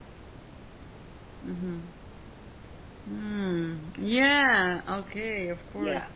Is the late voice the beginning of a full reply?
Yes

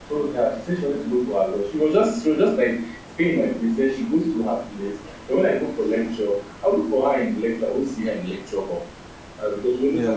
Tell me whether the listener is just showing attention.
Yes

